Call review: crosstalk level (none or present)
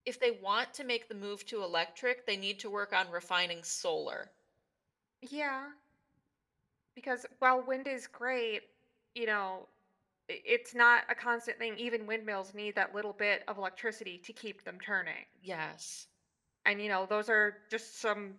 none